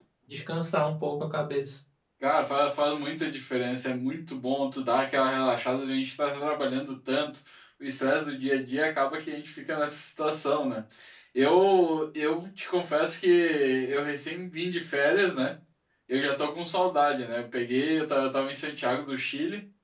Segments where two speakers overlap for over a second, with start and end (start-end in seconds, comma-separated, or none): none